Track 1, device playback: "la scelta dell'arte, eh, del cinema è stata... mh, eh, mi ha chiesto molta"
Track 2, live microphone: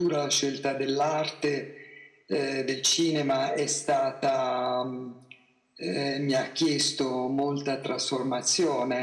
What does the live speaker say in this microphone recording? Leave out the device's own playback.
none

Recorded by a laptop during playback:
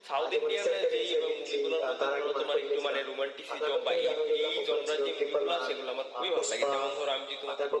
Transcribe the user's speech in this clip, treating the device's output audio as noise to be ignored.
none

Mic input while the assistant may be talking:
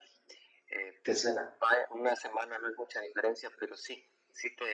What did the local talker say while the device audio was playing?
¿Te suena?

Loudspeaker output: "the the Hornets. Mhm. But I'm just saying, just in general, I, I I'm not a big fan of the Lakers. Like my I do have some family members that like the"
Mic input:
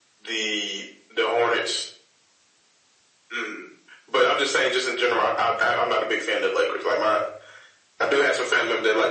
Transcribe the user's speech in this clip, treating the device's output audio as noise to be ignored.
none

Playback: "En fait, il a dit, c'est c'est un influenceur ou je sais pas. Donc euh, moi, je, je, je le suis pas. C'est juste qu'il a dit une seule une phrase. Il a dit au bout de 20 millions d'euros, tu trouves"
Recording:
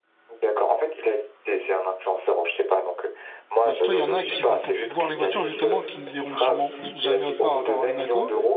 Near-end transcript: Et dis-toi, il y en a qui vont pour voir les voitures, justement, qui ne verront sûrement jamais autre part à part à Monaco.

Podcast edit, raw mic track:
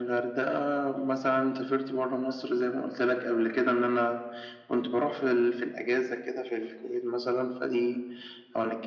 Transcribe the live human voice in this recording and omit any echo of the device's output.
none

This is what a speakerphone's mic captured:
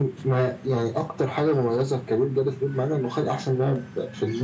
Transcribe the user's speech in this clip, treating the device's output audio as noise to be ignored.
none

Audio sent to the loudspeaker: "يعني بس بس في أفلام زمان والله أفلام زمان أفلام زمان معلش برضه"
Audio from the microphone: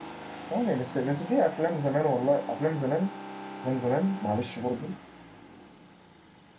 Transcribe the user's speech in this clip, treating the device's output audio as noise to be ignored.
none

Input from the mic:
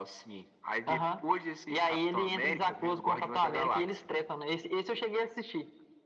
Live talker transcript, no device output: none

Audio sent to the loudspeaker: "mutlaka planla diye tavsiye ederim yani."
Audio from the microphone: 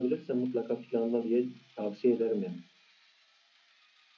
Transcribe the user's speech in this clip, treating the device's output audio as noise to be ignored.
none

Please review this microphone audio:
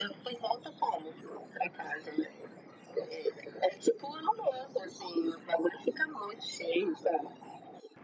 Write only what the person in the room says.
none

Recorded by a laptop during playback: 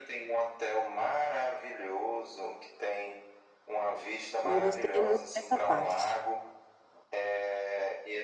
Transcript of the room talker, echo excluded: não gostei muito dessa parte.

